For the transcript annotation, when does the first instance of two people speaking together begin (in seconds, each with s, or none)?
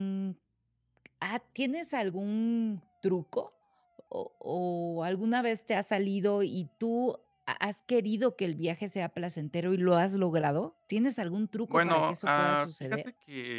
11.7 s